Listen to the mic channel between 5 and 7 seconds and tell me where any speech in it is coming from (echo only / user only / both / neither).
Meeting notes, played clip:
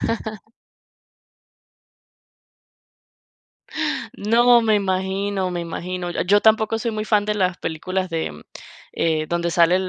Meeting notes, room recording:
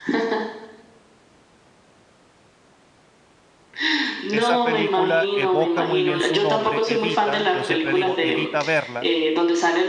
both